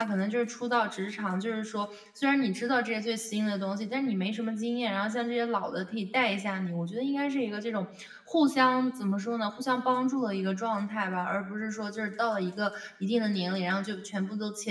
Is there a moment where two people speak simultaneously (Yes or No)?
No